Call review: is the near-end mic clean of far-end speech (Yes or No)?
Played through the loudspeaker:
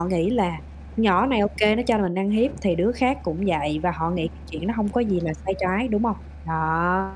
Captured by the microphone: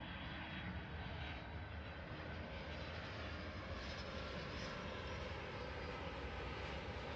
Yes